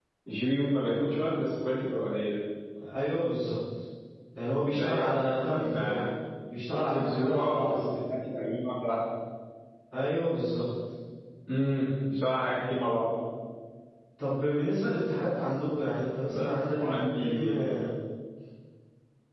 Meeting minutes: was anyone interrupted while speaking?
Yes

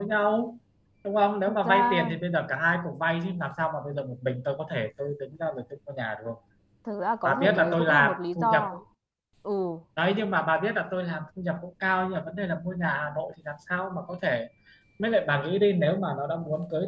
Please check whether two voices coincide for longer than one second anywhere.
Yes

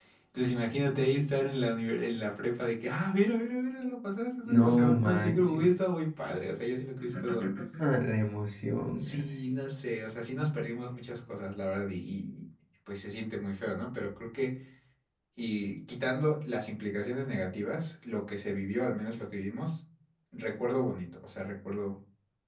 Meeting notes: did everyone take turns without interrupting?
No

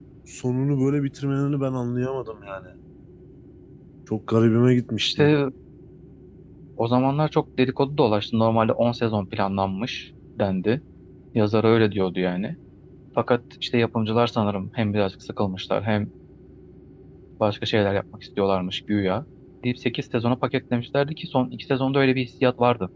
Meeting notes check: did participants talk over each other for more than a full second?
No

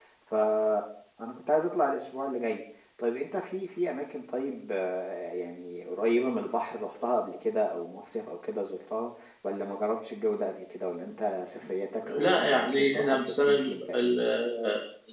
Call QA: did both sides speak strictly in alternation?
No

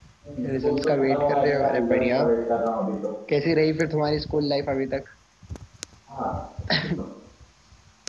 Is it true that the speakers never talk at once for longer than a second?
No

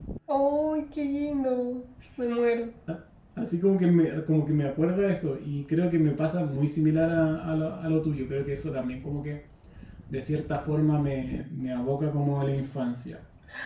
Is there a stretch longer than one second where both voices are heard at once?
No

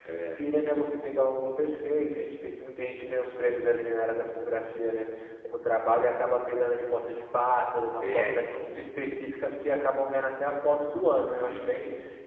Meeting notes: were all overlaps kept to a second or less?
Yes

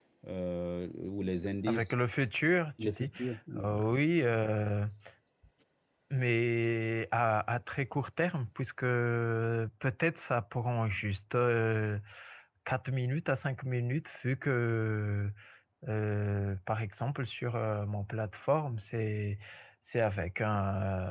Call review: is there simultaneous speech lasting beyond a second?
No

